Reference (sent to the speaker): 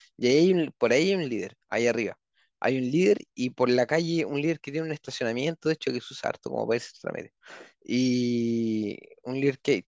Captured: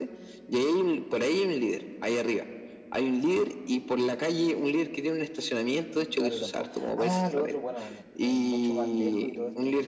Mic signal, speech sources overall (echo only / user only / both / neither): both